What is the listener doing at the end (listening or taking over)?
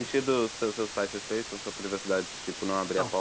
taking over